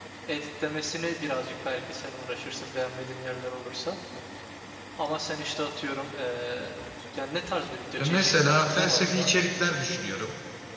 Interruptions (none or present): present